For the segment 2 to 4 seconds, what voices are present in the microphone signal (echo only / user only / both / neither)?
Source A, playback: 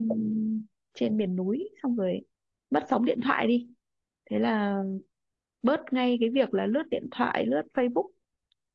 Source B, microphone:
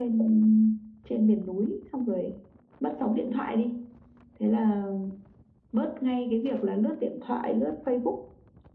echo only